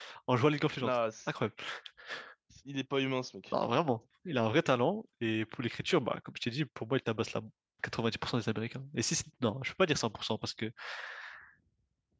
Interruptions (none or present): none